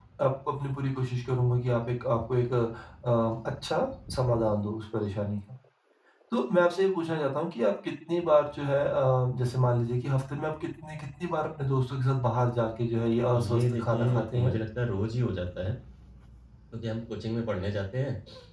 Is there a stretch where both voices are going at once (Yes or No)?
Yes